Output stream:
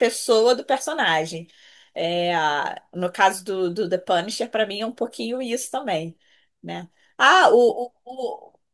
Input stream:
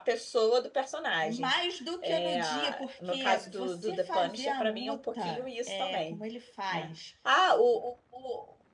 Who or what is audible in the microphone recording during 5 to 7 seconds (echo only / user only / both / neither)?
both